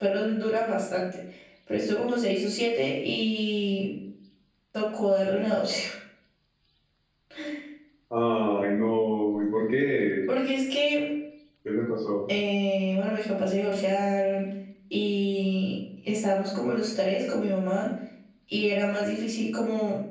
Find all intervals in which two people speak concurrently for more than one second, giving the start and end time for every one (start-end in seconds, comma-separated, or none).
none